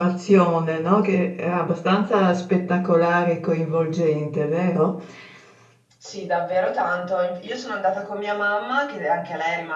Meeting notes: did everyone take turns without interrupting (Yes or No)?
Yes